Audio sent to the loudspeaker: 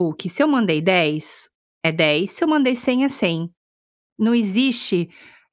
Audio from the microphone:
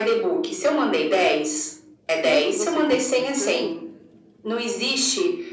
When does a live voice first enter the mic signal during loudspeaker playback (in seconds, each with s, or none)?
2.2 s